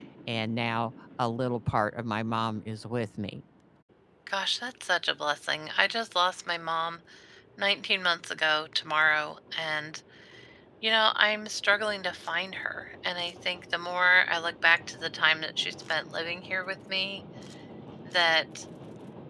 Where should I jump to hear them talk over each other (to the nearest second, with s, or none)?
none